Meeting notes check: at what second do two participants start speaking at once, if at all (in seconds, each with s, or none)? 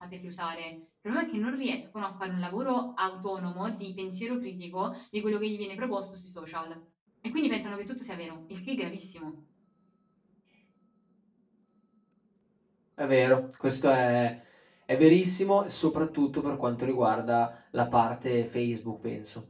none